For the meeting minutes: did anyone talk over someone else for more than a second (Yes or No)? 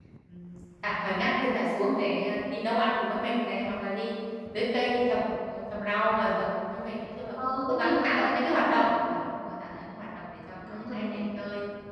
Yes